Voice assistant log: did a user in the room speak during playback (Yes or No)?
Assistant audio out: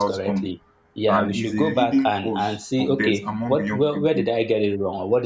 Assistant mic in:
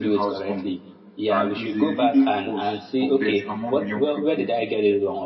No